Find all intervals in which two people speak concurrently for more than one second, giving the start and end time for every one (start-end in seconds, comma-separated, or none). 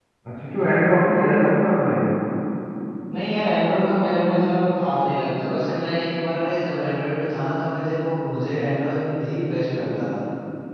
none